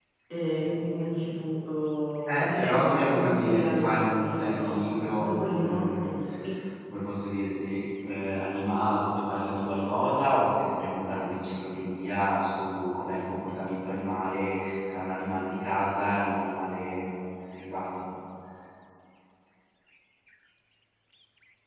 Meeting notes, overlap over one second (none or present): present